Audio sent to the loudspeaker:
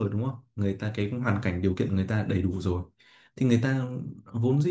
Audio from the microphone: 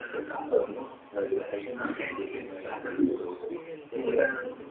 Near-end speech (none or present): present